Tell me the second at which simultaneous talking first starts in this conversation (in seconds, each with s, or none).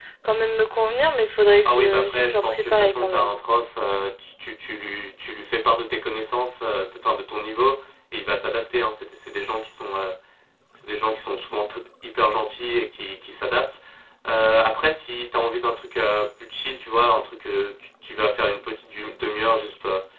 1.6 s